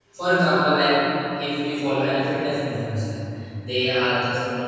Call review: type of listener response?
listening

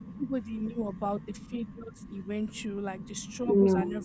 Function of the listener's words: listening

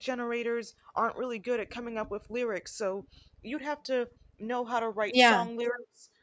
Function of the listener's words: listening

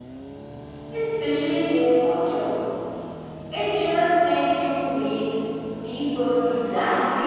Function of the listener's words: taking over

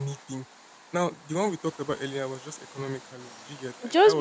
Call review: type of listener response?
taking over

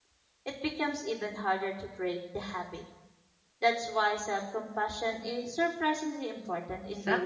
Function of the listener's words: taking over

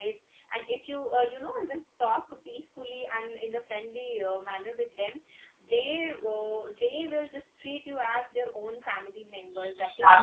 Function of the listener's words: taking over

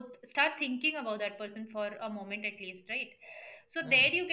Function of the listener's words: listening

